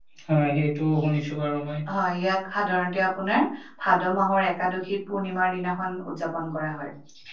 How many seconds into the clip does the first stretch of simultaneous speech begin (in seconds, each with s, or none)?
none